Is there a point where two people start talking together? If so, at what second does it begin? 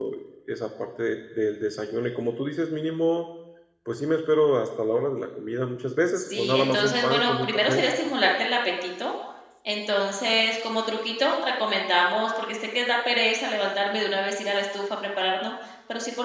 6.2 s

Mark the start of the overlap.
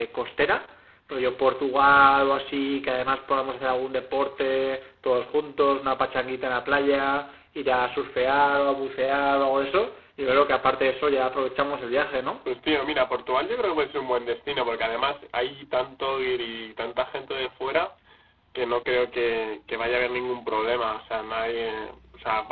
none

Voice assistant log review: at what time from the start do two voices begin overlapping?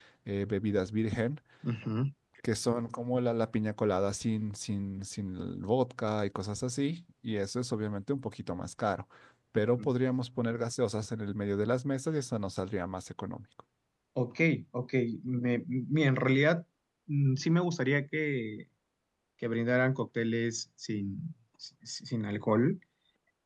none

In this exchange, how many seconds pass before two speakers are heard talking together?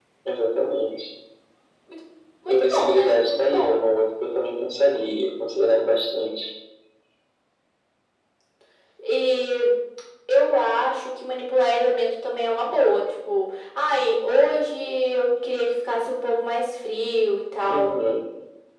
2.5 s

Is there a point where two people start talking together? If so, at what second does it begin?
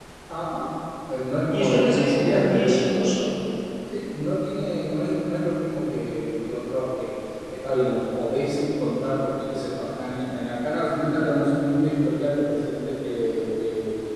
1.5 s

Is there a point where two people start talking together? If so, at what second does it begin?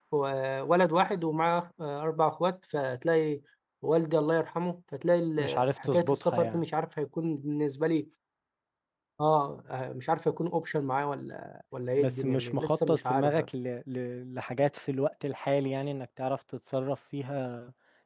5.4 s

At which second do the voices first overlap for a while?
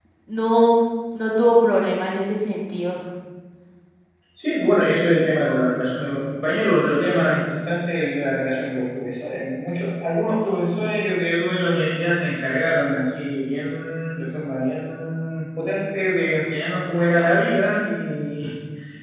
none

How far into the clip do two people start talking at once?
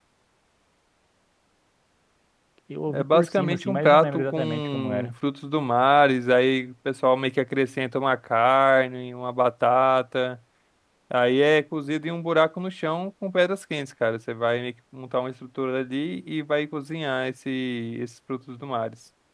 2.9 s

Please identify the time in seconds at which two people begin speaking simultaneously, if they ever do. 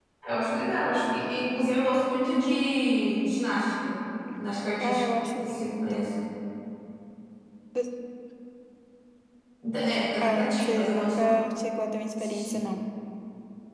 4.8 s

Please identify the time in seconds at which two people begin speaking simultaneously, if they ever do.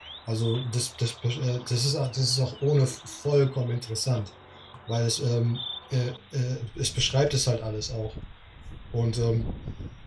none

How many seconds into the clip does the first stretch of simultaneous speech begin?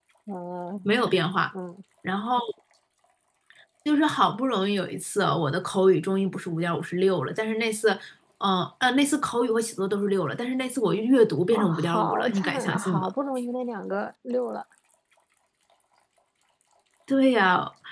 11.5 s

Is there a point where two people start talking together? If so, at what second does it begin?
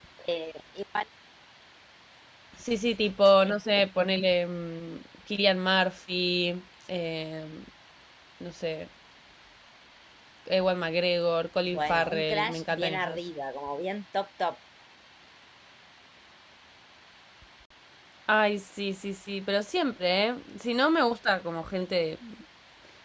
11.7 s

